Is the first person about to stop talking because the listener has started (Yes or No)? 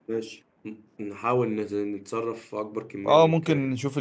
Yes